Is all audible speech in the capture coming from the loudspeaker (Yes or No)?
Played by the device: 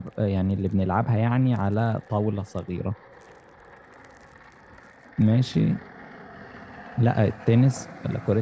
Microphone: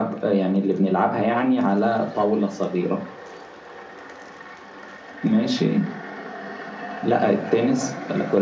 Yes